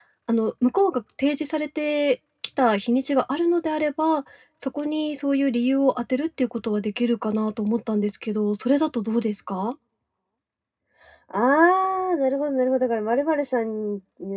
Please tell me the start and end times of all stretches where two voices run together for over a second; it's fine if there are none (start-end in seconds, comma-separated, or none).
none